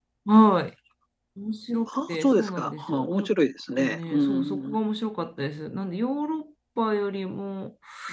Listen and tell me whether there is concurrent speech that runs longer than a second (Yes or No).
Yes